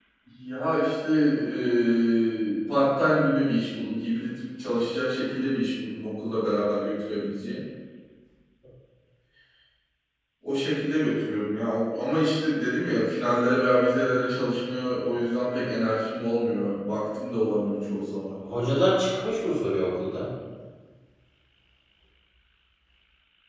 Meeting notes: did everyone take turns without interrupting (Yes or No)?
Yes